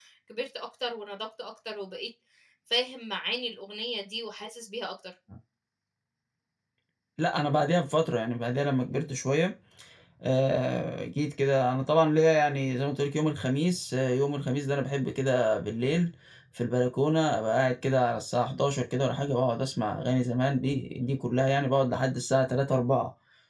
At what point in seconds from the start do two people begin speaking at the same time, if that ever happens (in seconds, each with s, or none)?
none